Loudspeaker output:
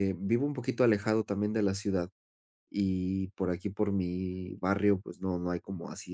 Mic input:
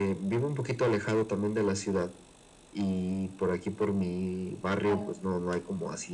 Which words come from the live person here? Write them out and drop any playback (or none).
claro.